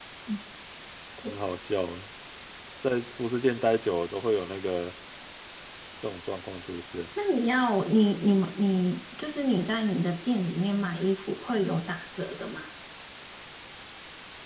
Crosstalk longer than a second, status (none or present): none